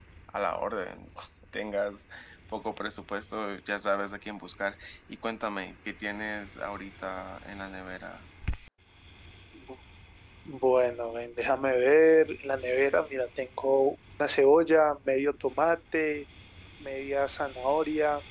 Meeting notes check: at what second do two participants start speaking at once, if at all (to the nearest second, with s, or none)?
none